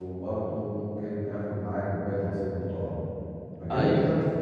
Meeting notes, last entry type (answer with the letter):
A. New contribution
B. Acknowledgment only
B